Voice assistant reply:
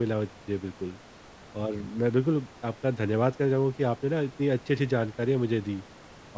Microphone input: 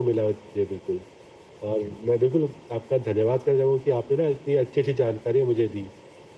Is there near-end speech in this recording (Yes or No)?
No